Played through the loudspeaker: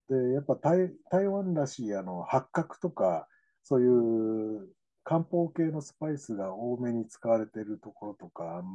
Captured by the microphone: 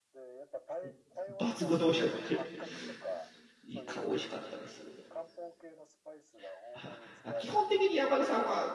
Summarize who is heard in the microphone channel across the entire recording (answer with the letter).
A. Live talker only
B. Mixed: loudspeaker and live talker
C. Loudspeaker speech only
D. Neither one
B